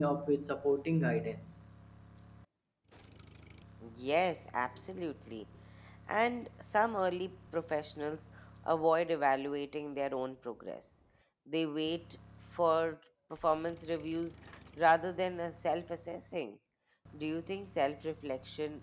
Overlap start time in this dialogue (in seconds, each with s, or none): none